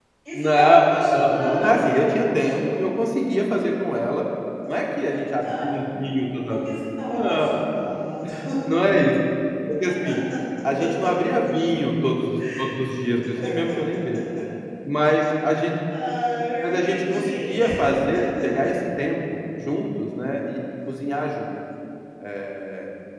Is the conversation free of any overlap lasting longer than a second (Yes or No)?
No